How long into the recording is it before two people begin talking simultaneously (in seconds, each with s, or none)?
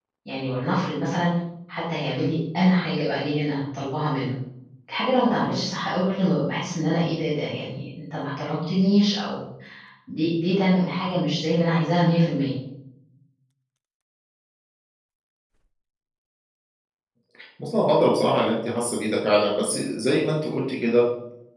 none